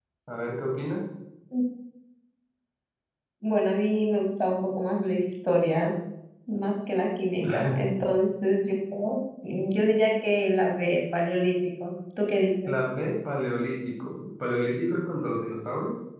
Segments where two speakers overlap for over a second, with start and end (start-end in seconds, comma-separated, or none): none